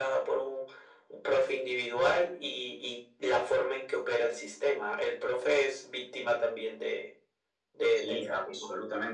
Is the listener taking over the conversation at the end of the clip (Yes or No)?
Yes